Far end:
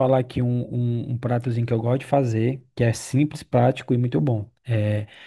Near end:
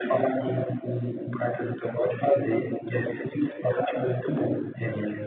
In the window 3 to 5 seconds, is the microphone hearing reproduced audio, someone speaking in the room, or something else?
echo only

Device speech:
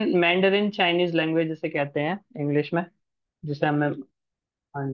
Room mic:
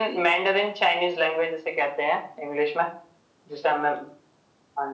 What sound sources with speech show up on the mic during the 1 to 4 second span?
echo only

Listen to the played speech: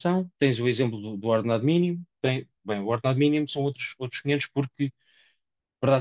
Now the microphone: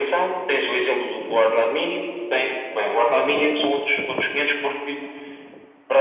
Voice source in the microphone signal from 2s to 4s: echo only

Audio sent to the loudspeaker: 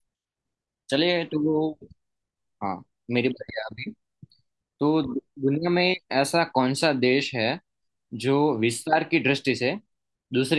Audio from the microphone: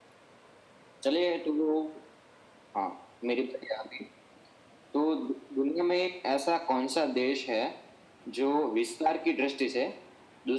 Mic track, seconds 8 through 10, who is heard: echo only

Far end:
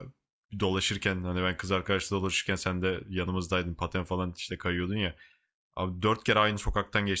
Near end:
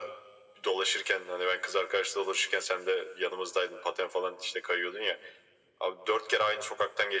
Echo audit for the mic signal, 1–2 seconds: echo only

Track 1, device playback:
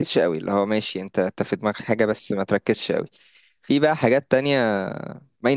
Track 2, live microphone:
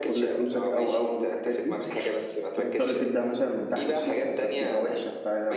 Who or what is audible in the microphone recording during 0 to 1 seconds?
both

